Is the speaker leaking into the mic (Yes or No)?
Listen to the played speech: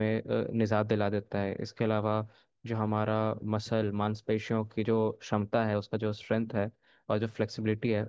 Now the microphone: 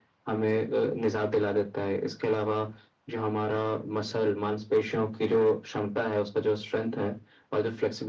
Yes